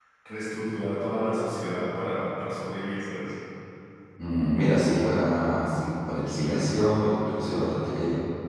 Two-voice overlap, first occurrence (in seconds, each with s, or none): none